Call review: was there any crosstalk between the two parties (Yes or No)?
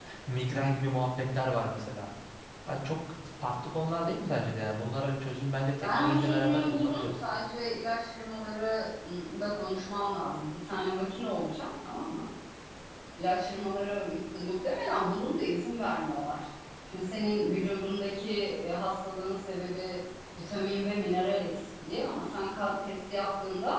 Yes